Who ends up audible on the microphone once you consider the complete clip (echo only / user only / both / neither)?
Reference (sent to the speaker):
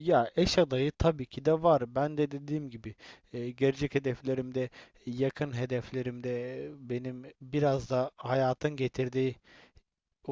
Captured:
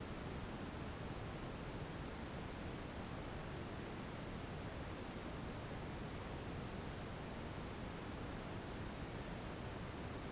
neither